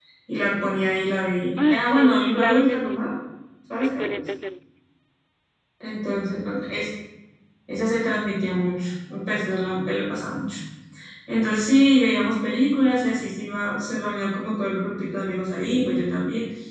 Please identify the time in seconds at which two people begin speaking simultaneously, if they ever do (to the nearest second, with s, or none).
2 s